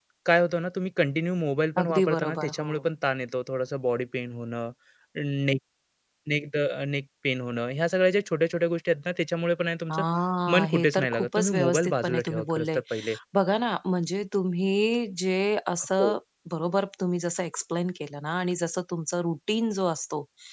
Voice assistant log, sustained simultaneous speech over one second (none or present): present